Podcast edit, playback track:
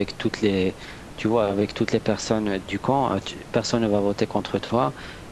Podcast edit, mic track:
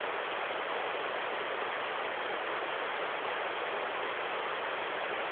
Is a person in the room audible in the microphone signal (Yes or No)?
No